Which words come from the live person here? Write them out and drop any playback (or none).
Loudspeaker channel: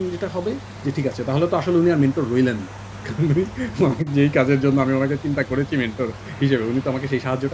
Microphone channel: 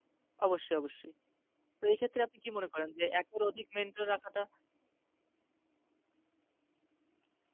অবশ্যই, অবশ্যই। তো এক্ষেত্রে আপনি কি মনে করেন যে একের অধিক মেন্টর রাখাটা